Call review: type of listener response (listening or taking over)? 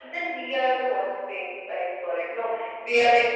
listening